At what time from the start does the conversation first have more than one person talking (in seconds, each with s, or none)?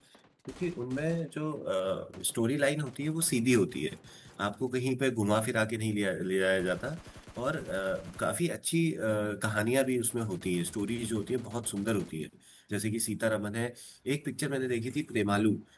none